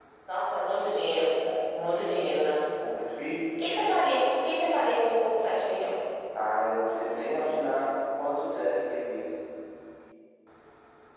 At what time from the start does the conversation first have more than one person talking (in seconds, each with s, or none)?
none